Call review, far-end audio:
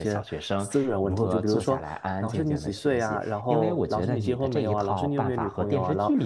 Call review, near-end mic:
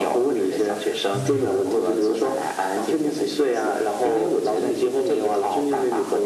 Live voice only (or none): 嗯。